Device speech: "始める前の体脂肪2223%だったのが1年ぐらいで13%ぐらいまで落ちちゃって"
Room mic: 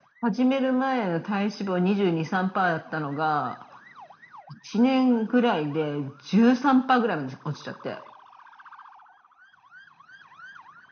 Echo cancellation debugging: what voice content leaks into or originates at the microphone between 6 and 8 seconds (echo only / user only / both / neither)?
echo only